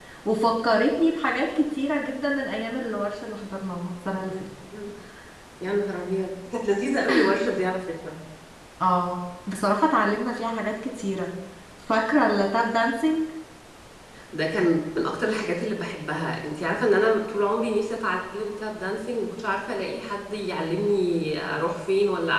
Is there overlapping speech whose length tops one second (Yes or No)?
No